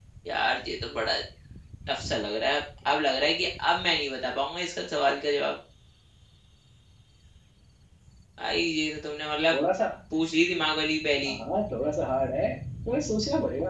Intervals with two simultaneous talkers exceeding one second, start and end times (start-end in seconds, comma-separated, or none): none